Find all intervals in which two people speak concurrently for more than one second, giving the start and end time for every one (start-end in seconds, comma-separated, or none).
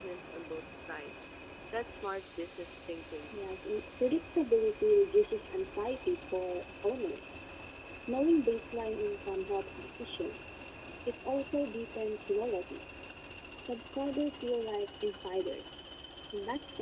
none